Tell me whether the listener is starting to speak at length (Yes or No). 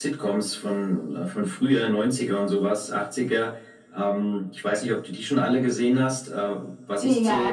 Yes